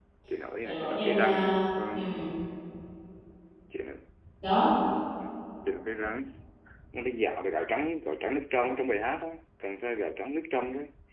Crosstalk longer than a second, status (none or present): present